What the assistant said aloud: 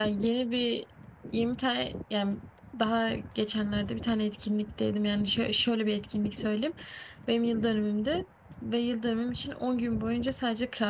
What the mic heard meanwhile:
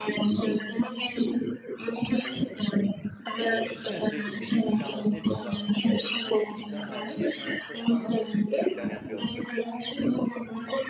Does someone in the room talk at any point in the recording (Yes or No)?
Yes